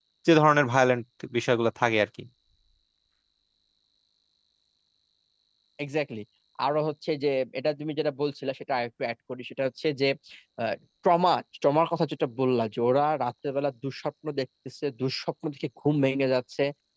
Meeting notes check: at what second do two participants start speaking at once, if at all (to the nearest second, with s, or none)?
none